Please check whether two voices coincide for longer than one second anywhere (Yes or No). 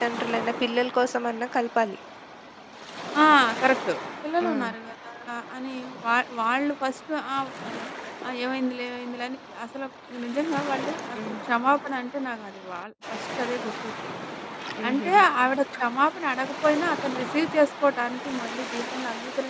No